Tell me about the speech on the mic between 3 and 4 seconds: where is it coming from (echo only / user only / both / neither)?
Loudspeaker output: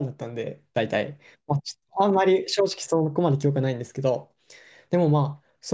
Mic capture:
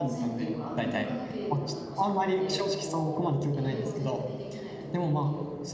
both